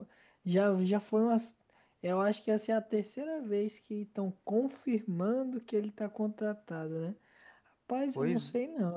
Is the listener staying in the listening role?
Yes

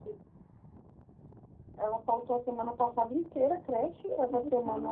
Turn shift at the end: No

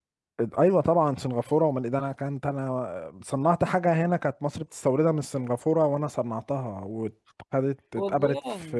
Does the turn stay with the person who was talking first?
Yes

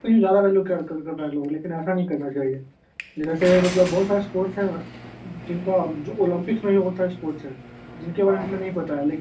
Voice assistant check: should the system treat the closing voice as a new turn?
No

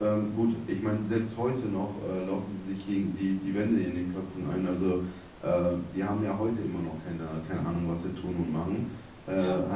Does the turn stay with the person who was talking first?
No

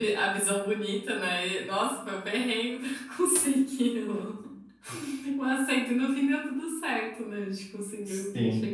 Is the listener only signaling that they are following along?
No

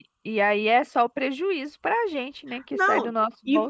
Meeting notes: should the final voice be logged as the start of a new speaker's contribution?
Yes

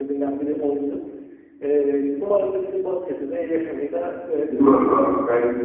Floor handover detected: Yes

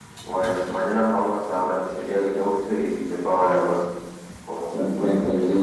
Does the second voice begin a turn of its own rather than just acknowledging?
Yes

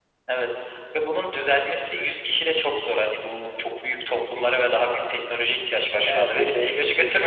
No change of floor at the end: No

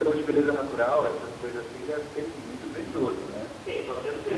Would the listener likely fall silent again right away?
No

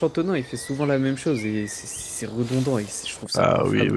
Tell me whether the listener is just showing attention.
No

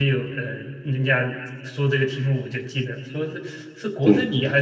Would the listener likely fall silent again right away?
Yes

